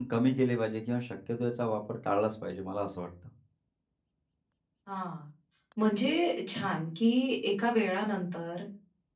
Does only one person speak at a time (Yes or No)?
Yes